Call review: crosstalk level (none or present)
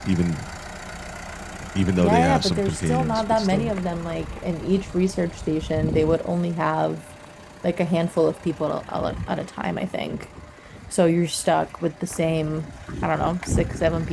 present